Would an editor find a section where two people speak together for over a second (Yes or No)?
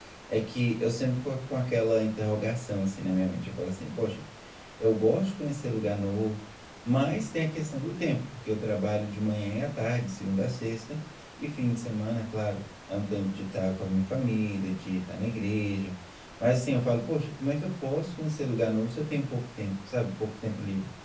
No